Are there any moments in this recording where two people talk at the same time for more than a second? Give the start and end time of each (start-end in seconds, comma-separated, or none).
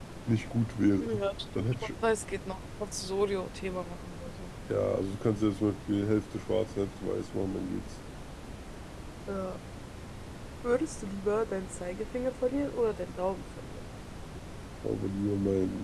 none